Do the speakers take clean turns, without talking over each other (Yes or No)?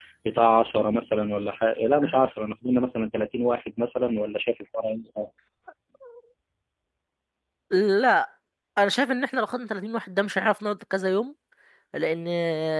Yes